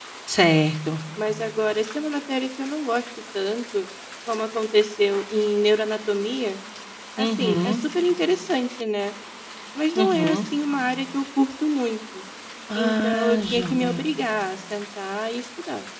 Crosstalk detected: Yes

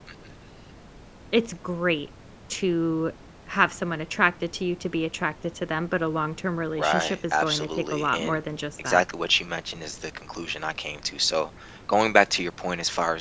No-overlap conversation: No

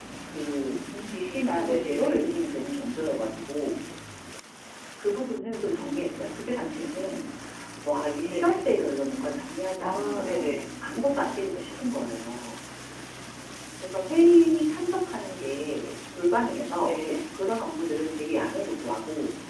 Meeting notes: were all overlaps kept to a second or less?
No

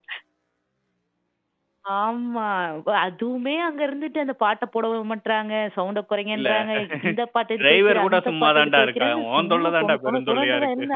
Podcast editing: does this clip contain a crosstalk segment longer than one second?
Yes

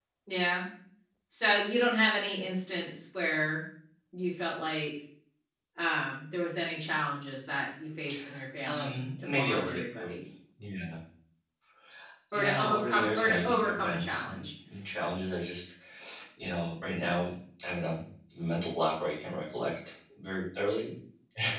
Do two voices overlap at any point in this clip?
Yes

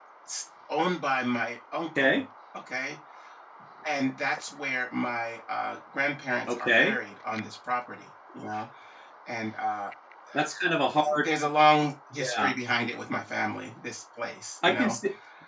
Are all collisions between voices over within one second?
Yes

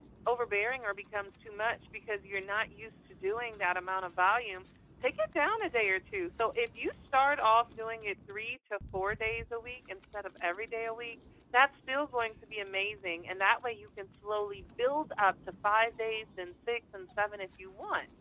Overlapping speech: No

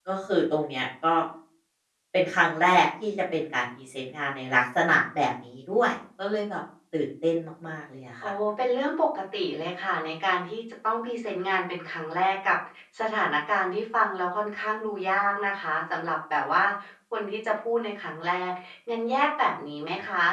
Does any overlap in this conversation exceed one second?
No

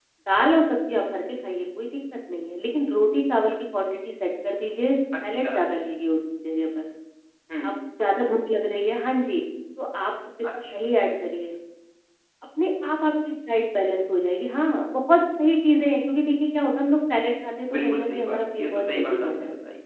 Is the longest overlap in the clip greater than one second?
Yes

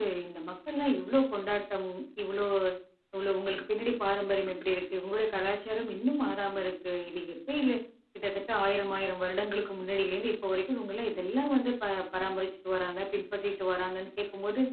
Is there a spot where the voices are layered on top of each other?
No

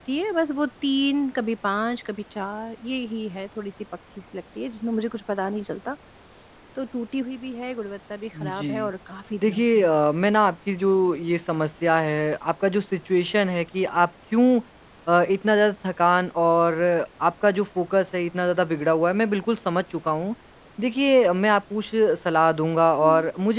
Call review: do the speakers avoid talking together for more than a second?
Yes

